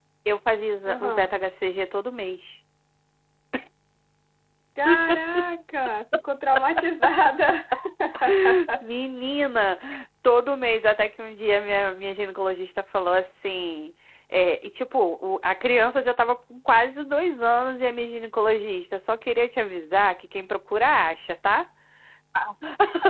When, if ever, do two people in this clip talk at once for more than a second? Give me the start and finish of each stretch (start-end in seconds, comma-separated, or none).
none